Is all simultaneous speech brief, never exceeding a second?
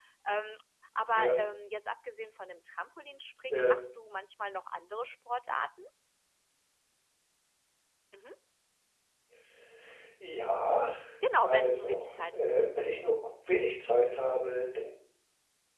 No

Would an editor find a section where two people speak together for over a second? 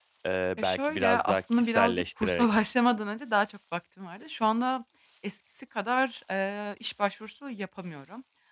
Yes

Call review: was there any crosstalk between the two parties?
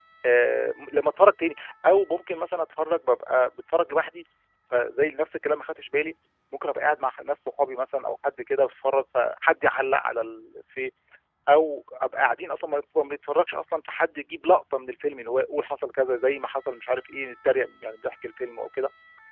No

